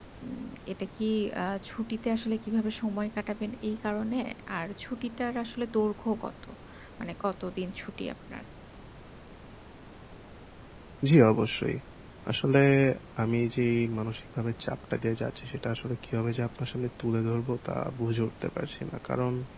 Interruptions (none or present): none